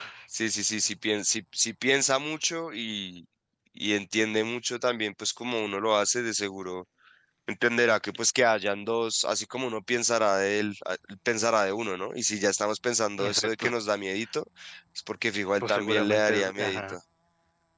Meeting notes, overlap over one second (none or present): present